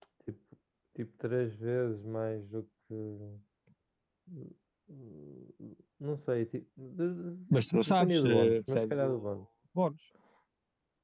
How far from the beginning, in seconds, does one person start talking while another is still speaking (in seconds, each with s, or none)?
7.5 s